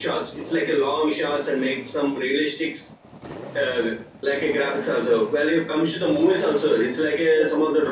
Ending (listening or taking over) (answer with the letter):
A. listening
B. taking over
A